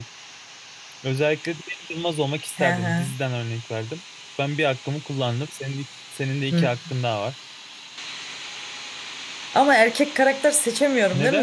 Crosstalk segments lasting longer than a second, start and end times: none

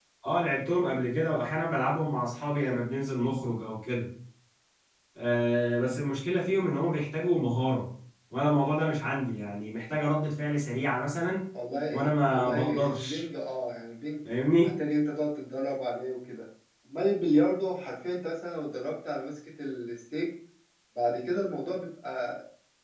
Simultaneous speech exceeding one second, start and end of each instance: 11.9-13.2

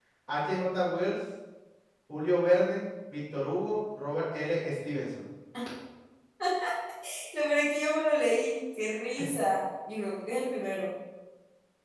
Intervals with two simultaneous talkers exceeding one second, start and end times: none

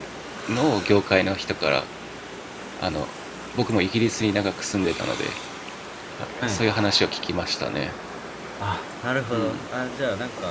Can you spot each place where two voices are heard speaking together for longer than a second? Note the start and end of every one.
none

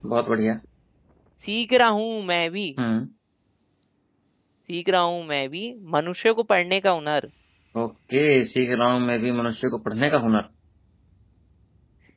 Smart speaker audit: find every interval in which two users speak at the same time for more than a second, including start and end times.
none

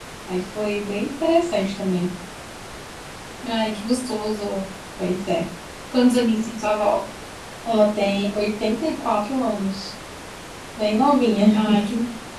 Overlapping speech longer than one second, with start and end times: none

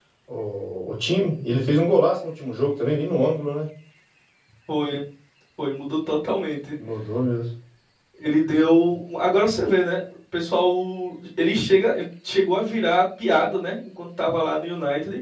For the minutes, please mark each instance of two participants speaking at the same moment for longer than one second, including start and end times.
none

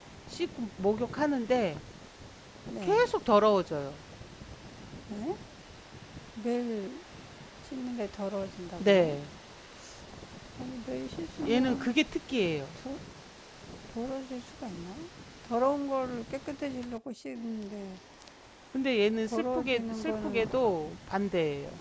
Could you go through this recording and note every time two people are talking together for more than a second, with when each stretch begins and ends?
19.2-20.5

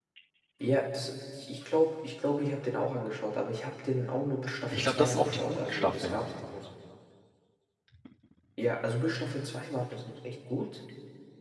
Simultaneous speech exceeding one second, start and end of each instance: 4.7-6.2

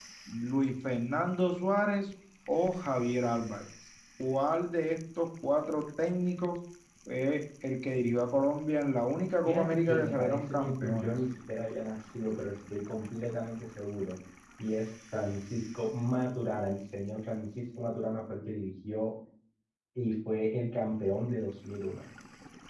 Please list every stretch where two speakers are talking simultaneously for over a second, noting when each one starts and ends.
9.4-11.1

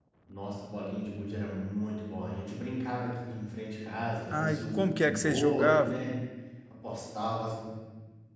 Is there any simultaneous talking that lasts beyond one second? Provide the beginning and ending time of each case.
4.4-6.0

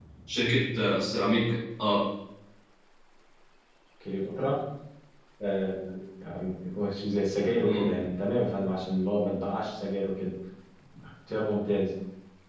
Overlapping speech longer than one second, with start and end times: none

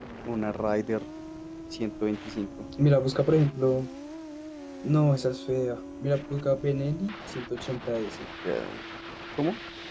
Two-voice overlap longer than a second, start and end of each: none

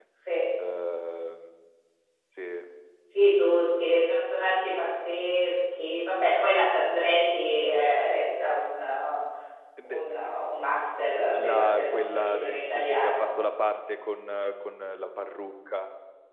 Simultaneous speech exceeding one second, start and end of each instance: 11.3-13.3

